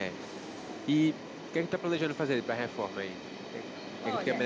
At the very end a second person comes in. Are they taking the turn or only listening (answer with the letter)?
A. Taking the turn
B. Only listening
A